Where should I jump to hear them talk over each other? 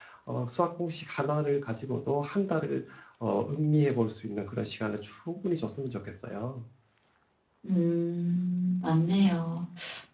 none

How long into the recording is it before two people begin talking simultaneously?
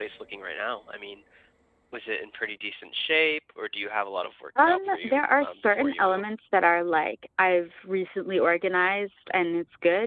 4.6 s

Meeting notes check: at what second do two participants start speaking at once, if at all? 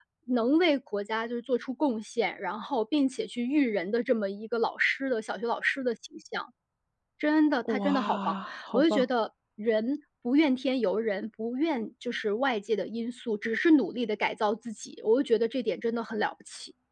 7.7 s

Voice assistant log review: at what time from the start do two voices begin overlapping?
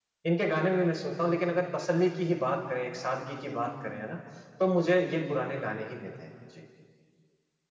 none

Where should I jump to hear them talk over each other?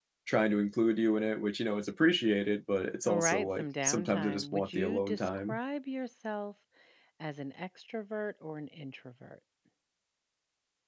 3.0 s

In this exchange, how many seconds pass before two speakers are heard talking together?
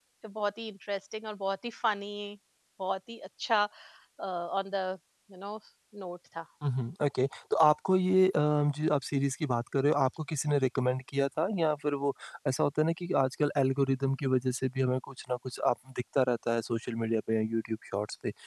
none

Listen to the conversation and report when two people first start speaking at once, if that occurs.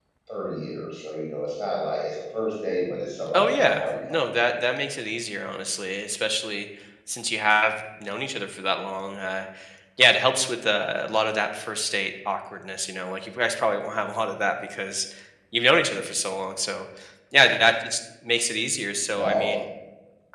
3.3 s

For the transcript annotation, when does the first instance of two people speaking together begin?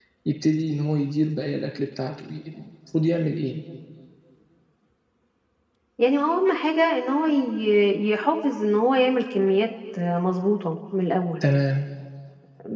none

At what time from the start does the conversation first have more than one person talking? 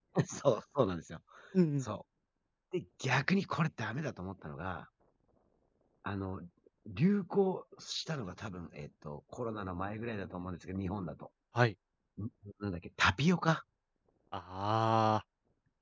none

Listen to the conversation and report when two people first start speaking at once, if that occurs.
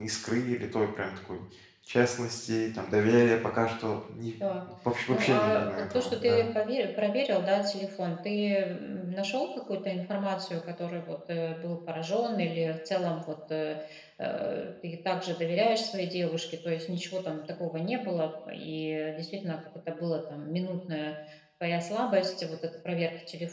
5.1 s

